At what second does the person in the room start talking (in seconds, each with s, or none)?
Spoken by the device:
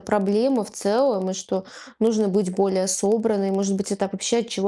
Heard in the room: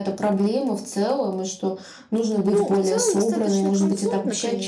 2.5 s